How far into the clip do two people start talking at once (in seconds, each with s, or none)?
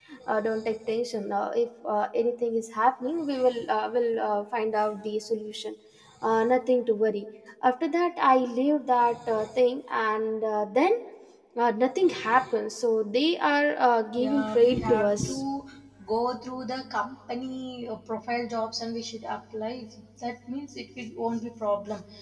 14.2 s